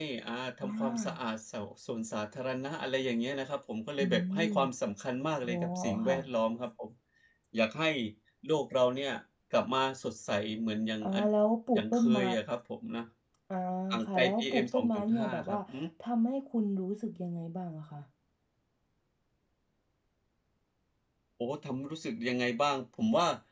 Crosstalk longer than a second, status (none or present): present